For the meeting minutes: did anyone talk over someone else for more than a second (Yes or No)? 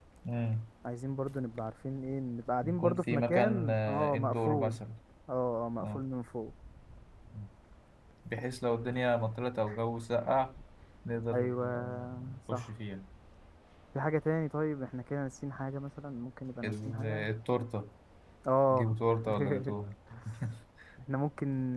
Yes